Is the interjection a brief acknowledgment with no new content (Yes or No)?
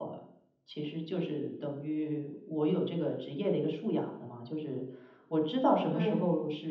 Yes